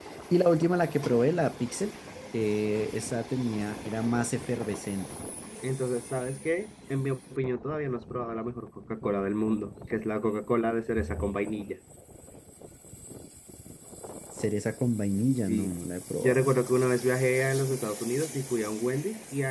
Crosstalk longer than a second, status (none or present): none